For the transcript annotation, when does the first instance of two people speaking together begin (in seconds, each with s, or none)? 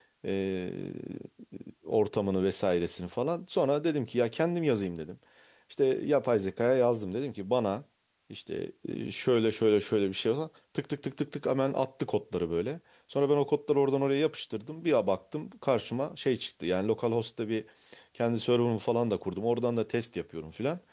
none